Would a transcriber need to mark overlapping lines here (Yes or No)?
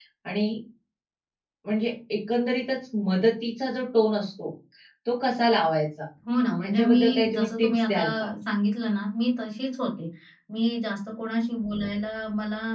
Yes